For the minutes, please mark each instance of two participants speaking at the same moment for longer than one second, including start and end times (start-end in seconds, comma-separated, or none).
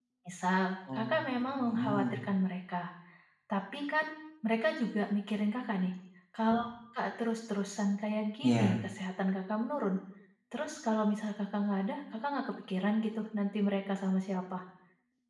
0.9-2.2